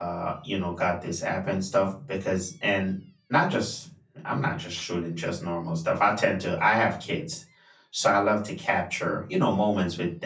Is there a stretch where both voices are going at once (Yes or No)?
No